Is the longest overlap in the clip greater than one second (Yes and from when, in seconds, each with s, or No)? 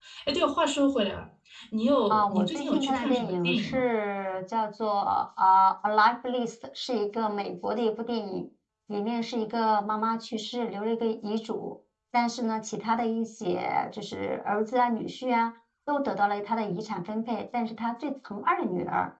Yes, from 2.1 s